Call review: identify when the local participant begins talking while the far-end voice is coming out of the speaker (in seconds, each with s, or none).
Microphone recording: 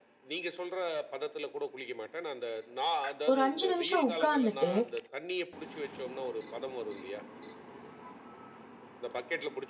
3.3 s